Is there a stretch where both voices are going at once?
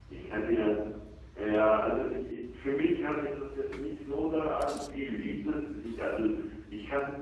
No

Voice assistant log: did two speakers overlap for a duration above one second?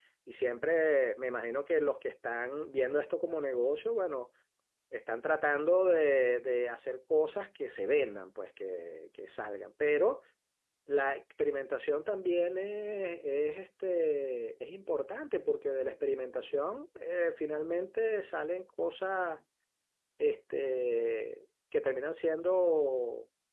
No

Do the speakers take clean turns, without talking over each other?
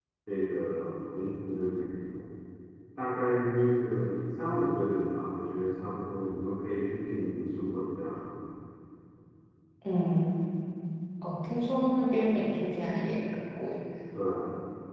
Yes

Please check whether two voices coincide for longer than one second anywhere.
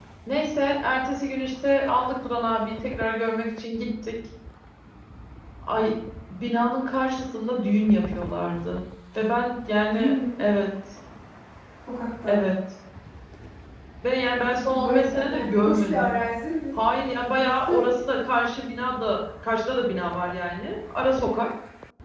Yes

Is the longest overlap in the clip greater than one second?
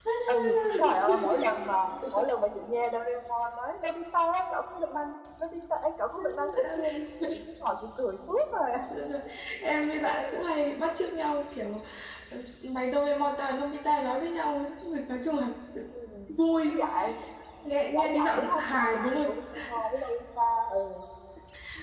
Yes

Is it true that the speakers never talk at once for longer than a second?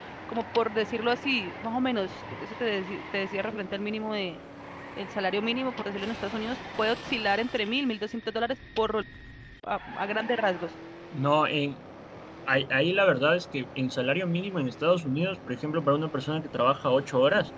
Yes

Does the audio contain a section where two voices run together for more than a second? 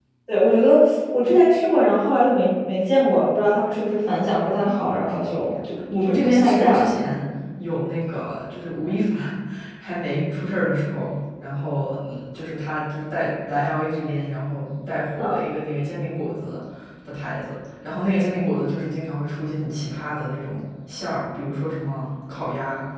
Yes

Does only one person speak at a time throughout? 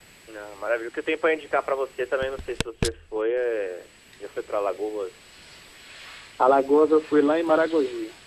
Yes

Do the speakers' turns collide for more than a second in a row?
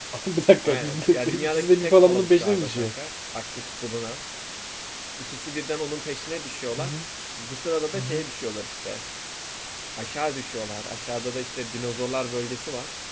Yes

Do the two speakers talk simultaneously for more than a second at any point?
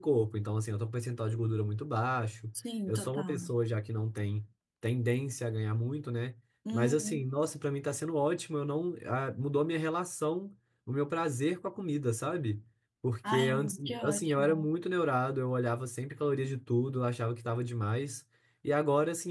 Yes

